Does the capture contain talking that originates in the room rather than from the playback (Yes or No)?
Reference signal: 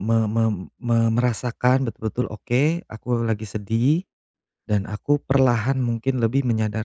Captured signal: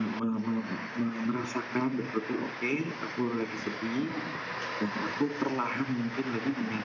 No